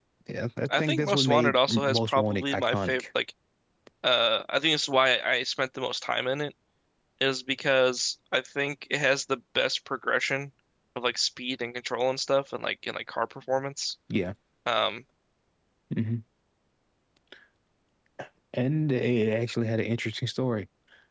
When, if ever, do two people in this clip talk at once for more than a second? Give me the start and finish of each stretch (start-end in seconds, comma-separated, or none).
0.8-3.0